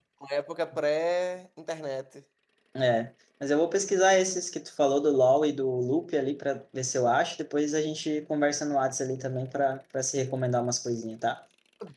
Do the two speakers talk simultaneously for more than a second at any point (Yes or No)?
No